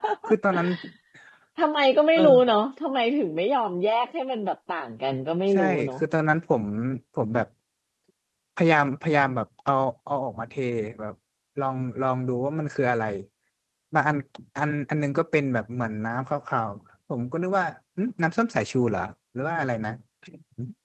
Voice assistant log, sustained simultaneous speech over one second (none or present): none